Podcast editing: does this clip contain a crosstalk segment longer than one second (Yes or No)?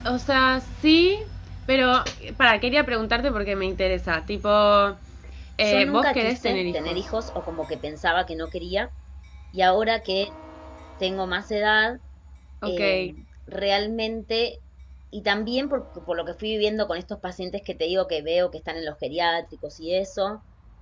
Yes